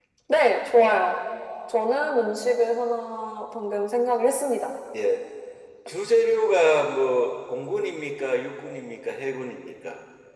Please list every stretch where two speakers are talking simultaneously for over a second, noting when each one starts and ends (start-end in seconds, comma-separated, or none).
none